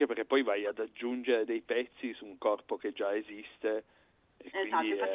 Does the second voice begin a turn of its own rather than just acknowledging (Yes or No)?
Yes